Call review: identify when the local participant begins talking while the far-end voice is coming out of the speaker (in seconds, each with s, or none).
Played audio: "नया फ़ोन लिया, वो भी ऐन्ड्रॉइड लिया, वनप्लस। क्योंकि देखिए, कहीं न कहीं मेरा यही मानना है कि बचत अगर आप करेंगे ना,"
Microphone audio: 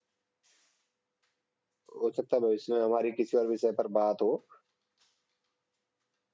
2.0 s